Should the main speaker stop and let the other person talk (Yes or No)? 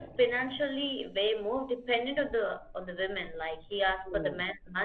No